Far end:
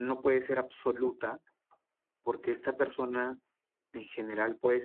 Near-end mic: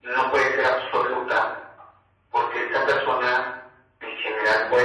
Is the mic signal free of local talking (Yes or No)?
Yes